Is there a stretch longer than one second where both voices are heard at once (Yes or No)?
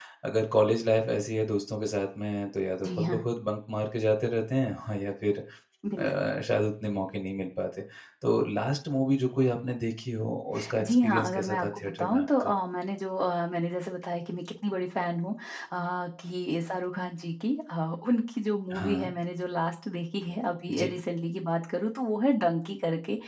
Yes